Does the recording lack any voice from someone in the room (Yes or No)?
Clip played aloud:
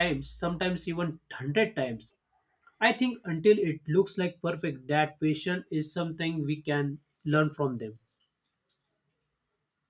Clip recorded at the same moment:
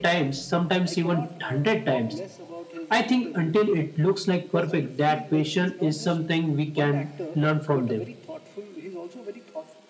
No